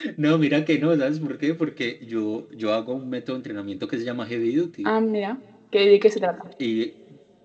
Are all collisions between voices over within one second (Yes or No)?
Yes